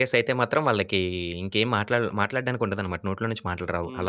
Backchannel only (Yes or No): No